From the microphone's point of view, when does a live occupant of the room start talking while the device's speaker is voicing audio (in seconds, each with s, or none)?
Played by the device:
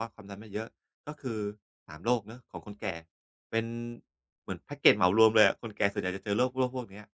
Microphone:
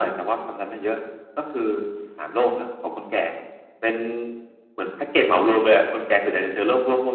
none